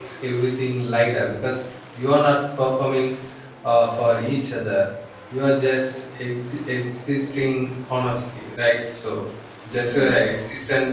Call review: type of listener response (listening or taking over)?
listening